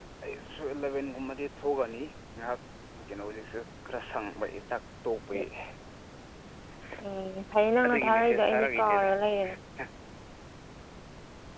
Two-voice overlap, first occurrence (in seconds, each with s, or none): 7.8 s